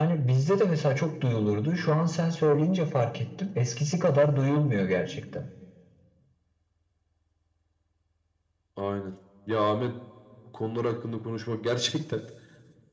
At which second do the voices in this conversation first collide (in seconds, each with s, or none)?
none